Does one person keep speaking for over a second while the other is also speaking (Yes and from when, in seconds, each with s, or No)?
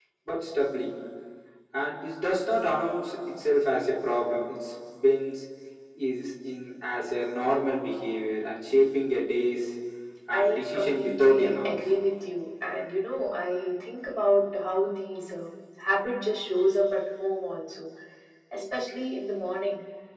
Yes, from 10.3 s